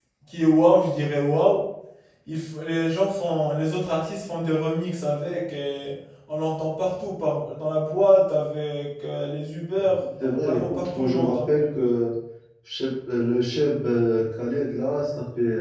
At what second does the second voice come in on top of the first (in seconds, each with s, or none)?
10.2 s